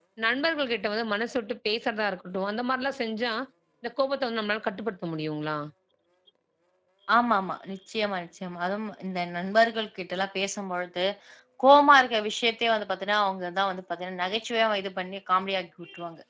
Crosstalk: none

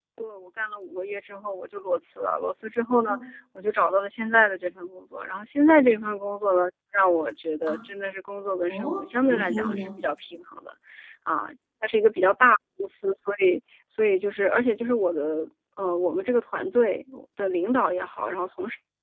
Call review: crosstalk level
present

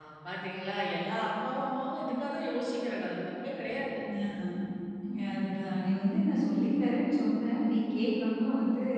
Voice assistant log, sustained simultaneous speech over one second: none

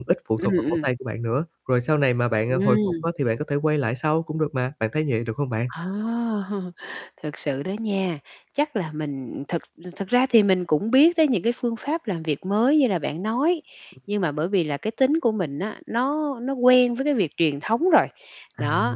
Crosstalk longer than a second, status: none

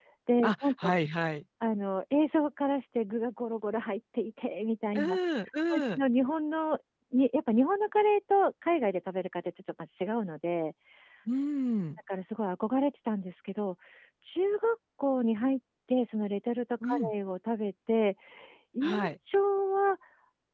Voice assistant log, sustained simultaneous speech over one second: none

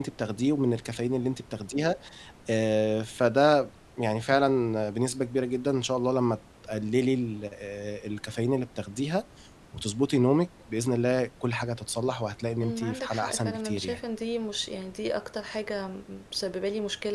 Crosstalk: present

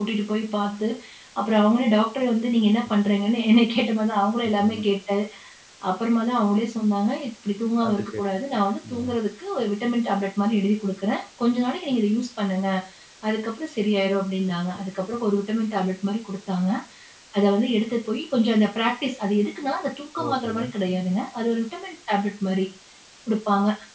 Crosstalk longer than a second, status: none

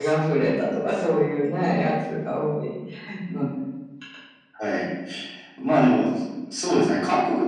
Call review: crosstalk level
none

